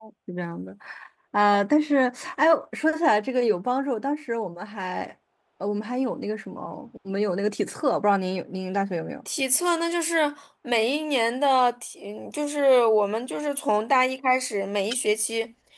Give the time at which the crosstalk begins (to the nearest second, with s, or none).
none